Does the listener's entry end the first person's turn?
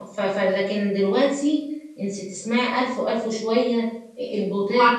Yes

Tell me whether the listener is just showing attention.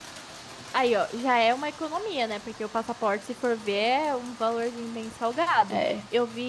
Yes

